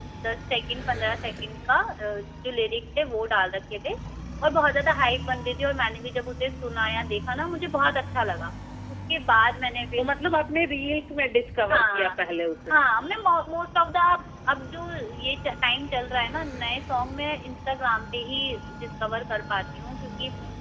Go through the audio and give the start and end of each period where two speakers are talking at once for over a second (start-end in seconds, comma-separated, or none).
none